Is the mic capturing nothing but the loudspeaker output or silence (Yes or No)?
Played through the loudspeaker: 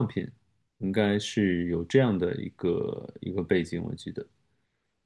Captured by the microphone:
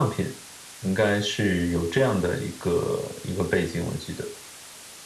Yes